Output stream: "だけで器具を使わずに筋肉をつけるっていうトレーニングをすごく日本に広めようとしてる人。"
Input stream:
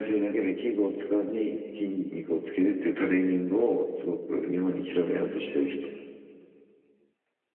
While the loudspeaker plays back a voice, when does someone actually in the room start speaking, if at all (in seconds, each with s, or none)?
none